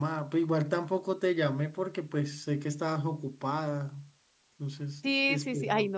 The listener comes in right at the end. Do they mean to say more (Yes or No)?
Yes